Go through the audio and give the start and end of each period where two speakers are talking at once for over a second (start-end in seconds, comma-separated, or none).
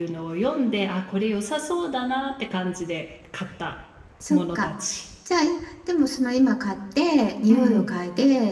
none